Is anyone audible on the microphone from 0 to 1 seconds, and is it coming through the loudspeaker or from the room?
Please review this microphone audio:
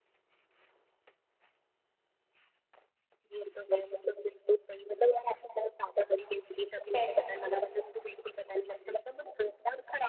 neither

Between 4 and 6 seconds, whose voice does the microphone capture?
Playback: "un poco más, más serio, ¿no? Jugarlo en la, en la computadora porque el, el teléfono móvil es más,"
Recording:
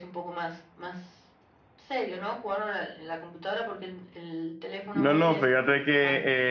both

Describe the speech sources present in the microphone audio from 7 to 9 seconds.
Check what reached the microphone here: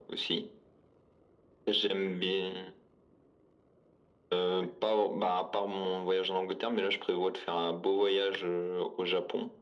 echo only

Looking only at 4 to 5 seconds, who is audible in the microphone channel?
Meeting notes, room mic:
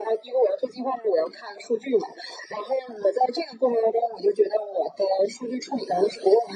echo only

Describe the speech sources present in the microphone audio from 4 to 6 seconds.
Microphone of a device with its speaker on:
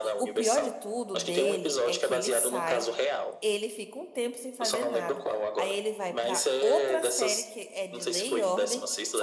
both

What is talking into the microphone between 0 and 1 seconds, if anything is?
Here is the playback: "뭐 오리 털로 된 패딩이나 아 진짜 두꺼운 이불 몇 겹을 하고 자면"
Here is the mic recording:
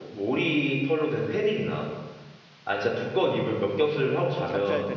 echo only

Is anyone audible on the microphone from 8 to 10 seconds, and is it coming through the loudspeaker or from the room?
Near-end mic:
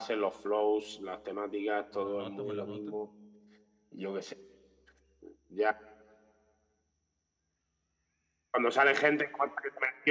echo only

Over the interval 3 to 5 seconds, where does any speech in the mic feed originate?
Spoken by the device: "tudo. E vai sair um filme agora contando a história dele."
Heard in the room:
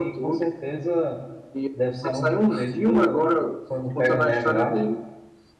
both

